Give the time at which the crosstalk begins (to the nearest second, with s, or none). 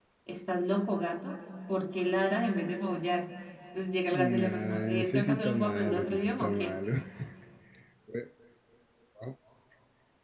4 s